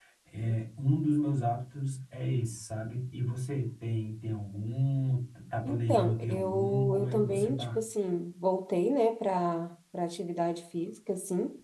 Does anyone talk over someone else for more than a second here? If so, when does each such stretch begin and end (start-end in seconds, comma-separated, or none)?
5.7-7.8